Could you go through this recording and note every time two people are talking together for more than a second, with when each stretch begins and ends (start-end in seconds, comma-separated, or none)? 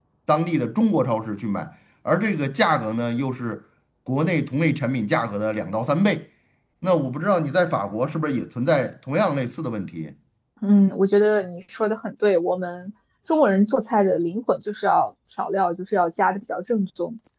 none